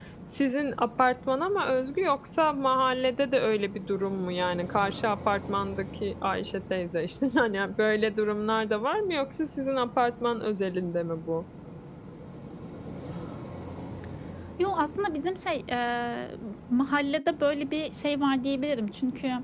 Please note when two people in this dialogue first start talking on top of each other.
none

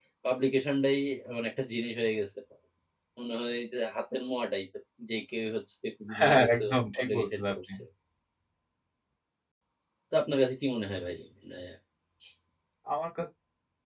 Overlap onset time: 6.1 s

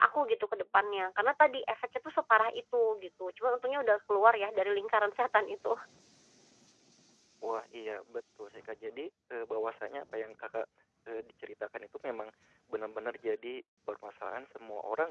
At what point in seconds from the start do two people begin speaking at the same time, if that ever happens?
none

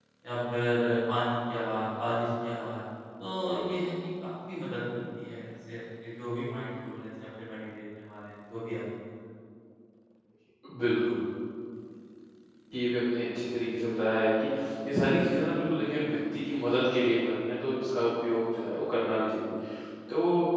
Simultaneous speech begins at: none

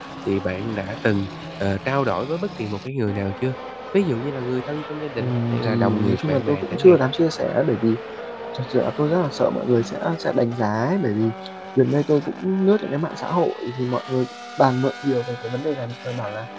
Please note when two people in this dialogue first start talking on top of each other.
5.2 s

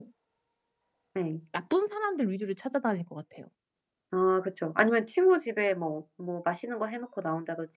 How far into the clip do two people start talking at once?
none

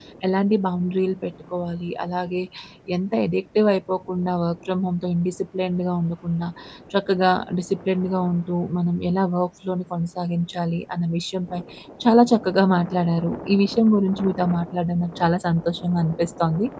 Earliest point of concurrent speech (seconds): none

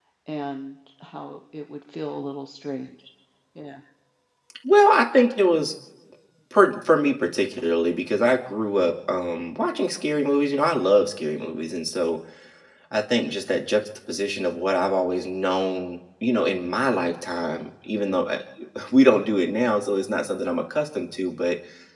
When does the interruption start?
none

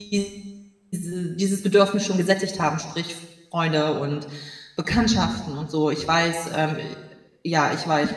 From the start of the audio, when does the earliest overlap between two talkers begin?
none

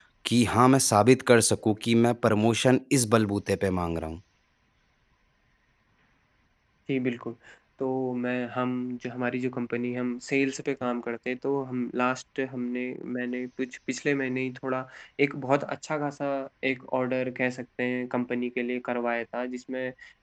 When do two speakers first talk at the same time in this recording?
none

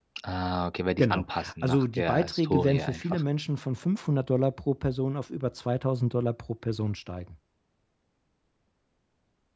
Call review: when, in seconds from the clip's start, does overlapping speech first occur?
1.0 s

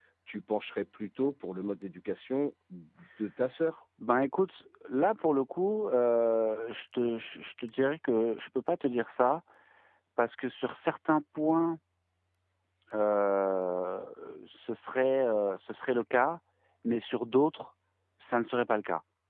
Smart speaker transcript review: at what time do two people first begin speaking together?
none

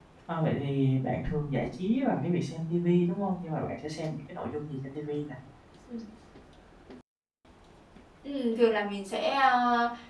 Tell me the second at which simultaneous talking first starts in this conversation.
none

